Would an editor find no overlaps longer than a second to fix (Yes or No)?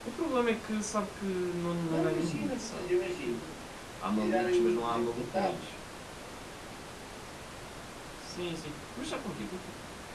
No